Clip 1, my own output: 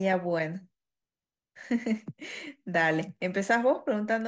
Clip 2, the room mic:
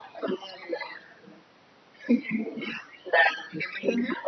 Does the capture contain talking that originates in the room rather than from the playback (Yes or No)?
No